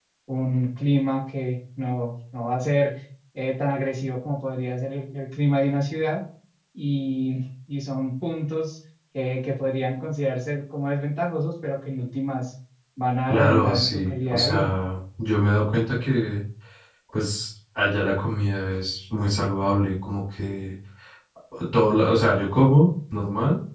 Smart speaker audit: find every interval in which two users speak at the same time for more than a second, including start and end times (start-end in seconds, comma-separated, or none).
13.3-14.7